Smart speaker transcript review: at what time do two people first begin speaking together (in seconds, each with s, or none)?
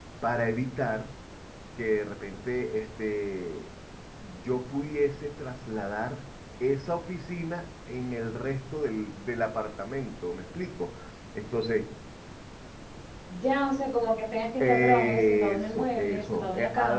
14.6 s